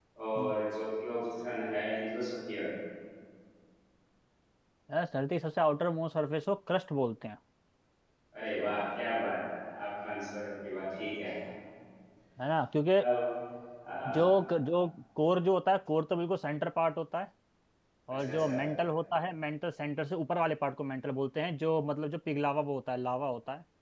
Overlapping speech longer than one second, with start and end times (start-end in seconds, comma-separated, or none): none